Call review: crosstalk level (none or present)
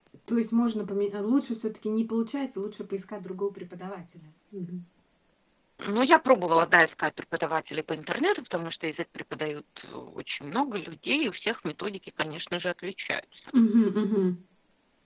none